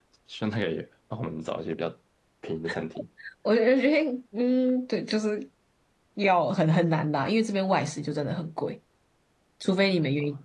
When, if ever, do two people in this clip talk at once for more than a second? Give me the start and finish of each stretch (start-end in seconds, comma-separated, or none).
none